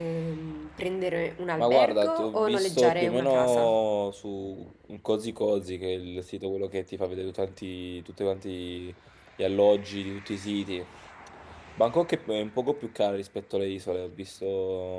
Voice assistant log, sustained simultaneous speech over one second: present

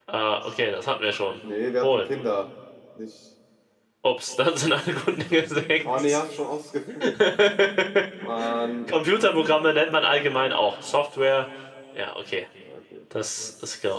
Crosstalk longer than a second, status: none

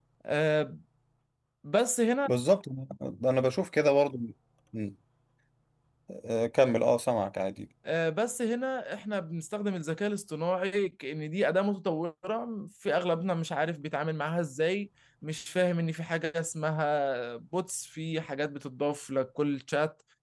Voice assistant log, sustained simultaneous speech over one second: none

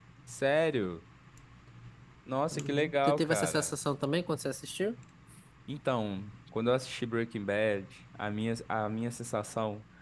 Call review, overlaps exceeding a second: present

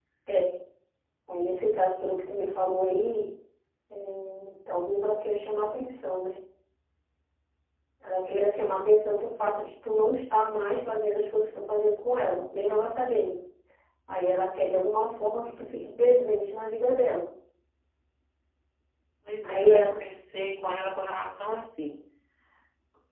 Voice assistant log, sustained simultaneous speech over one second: none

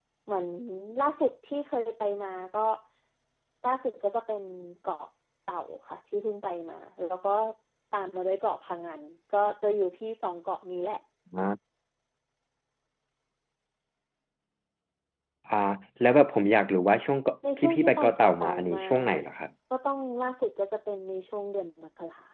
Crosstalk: present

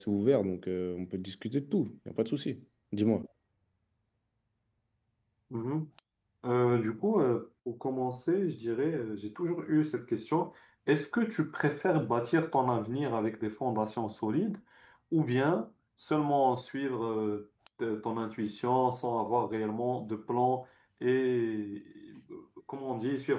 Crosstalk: none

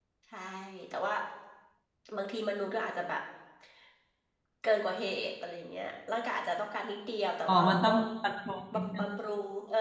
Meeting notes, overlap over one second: none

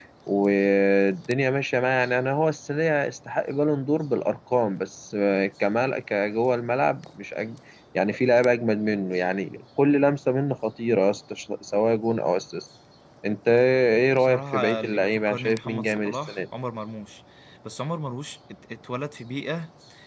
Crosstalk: present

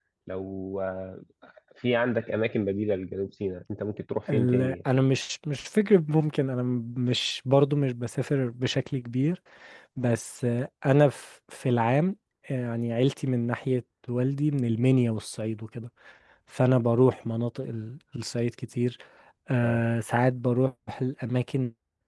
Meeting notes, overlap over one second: none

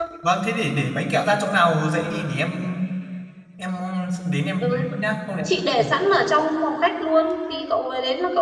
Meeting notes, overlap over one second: none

